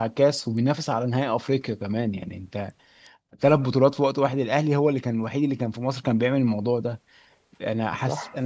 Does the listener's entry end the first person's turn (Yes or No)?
No